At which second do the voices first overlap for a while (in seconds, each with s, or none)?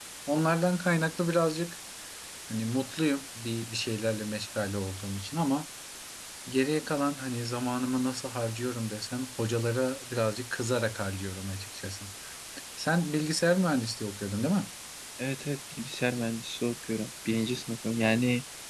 none